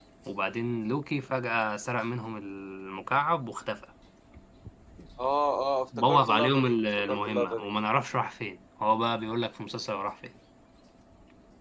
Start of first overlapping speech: 6.0 s

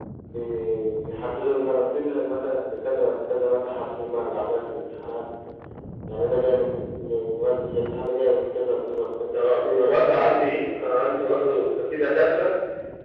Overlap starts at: 9.3 s

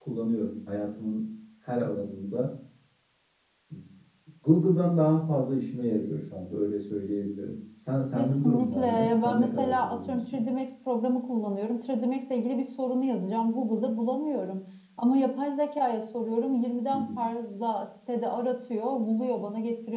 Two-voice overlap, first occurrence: 8.2 s

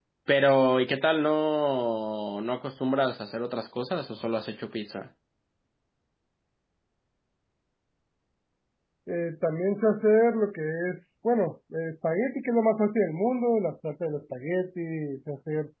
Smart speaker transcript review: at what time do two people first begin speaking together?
none

